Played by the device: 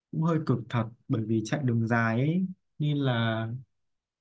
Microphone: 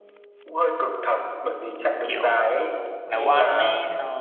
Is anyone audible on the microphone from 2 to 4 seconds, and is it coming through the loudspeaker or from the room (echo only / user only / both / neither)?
both